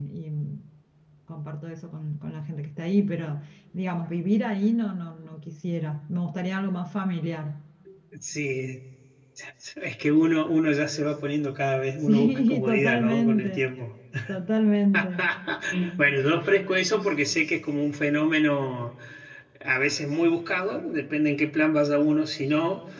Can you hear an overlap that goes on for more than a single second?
Yes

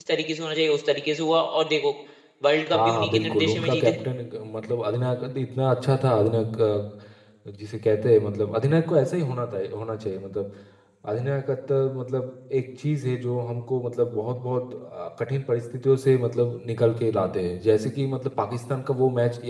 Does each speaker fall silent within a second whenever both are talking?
No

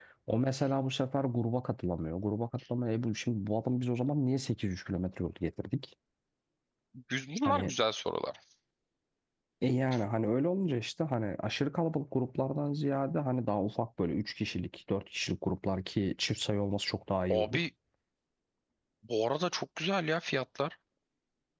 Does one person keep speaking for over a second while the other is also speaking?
No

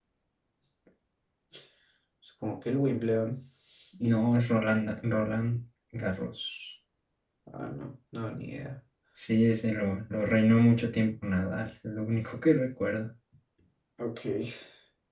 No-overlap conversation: Yes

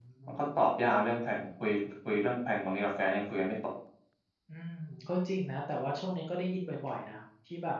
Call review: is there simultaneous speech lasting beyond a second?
No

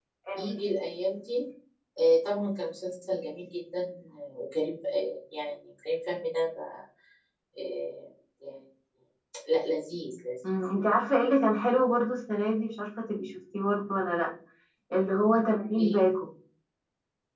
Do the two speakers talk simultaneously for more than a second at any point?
No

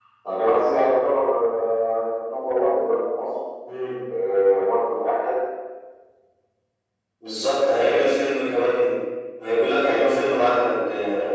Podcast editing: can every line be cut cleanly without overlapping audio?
Yes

